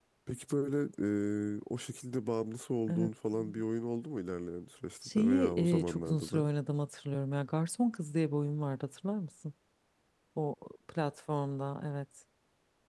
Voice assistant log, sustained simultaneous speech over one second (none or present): present